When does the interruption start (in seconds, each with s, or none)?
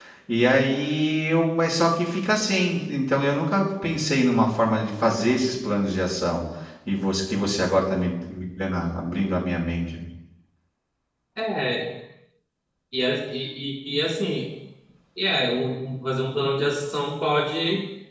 none